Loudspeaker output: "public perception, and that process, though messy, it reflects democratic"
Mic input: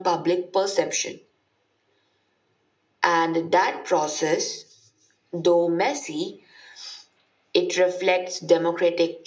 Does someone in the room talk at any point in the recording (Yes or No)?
No